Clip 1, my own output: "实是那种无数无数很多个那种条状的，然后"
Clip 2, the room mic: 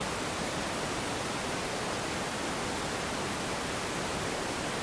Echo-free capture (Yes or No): Yes